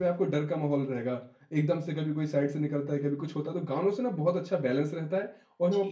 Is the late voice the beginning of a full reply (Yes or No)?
Yes